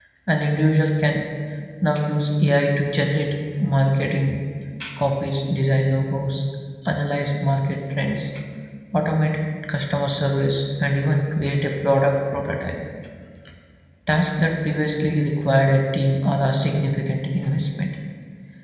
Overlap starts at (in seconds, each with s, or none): none